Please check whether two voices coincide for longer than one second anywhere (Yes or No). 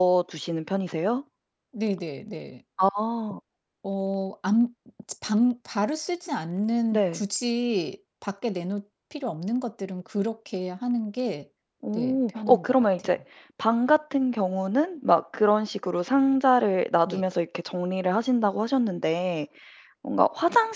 Yes